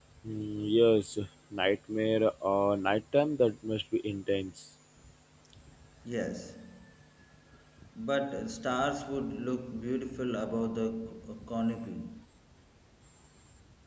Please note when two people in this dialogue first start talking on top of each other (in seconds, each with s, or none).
none